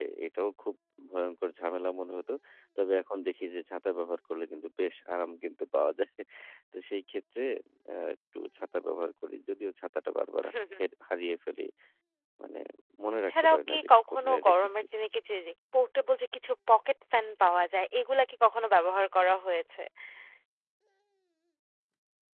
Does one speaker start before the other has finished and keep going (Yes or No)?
Yes